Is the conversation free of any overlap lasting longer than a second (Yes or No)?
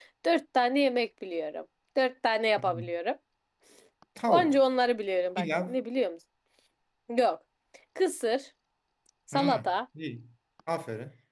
Yes